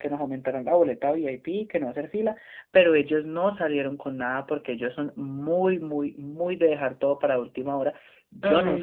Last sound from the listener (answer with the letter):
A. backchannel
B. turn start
A